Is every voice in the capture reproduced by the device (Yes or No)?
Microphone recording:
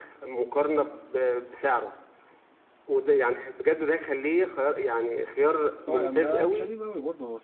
No